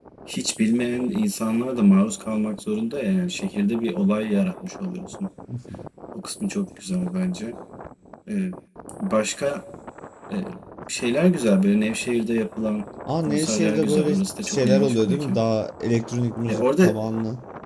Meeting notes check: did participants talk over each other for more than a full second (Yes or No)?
Yes